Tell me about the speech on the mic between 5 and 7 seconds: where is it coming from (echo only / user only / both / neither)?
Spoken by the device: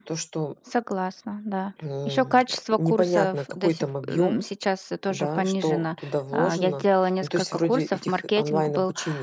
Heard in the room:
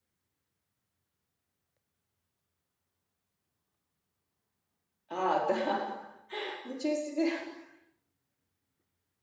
user only